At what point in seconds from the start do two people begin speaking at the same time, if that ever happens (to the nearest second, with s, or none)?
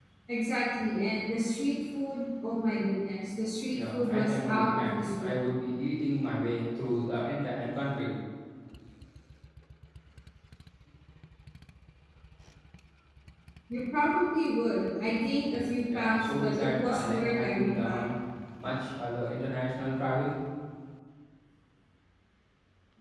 4 s